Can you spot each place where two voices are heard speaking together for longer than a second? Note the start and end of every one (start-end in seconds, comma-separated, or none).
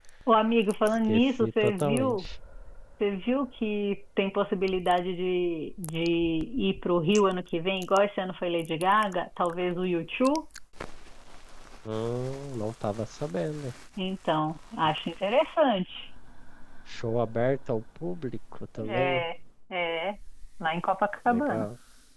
0.9-2.2